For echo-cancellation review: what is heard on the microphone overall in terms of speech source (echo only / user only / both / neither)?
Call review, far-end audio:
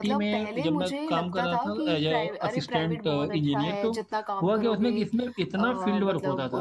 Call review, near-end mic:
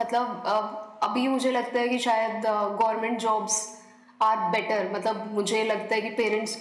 user only